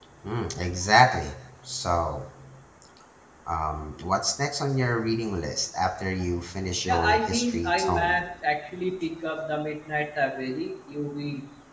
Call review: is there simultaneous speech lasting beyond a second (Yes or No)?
Yes